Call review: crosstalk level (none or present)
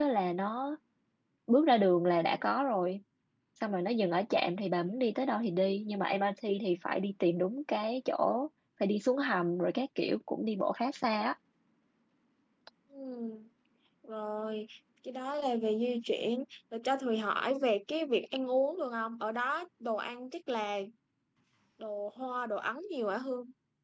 none